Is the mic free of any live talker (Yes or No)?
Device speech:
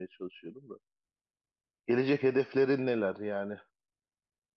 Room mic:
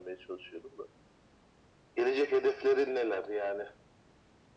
Yes